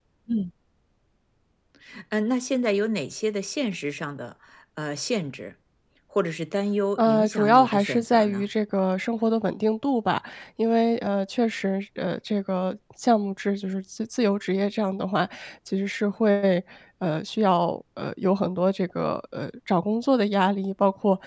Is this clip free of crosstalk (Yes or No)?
No